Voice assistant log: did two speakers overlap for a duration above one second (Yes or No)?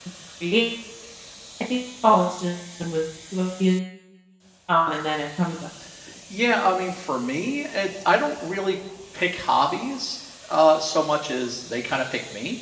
No